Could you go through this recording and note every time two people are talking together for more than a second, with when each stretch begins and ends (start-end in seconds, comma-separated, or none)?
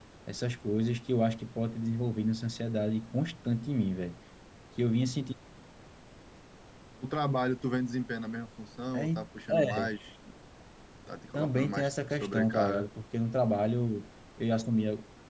11.3-12.8